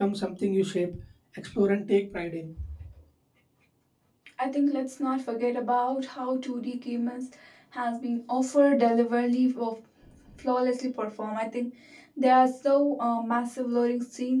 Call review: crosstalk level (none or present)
none